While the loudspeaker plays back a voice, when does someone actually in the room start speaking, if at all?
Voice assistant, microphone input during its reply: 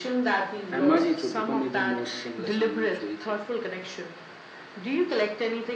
1 s

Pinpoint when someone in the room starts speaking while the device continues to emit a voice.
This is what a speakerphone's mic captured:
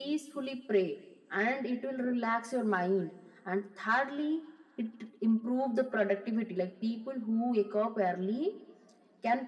none

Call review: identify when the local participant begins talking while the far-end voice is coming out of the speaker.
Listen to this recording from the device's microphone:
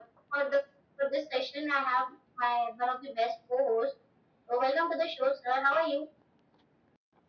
none

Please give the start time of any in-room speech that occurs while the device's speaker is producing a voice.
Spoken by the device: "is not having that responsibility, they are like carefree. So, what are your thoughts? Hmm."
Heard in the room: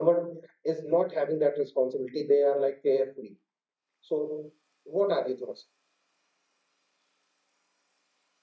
none

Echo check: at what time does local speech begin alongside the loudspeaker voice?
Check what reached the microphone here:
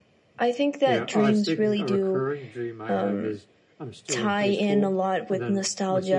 1 s

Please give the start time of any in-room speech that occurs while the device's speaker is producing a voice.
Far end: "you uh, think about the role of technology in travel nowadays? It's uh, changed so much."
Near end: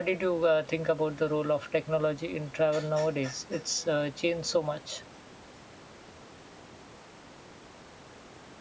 none

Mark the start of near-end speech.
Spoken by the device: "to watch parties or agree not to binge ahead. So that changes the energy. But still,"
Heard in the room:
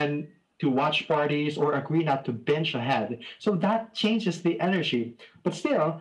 none

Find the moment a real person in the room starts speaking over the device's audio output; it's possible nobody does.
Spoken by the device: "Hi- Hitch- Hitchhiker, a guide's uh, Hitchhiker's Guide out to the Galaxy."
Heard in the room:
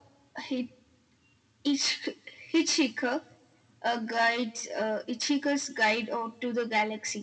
none

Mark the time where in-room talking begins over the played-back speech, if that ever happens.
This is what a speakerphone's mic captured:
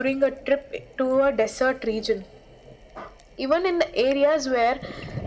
none

